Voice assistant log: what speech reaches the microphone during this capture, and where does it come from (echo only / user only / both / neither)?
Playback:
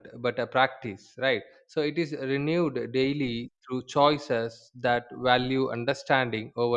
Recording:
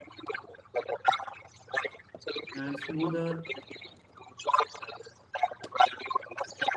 both